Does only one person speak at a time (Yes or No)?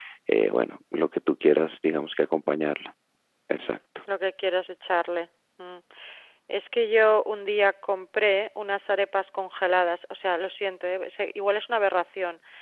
Yes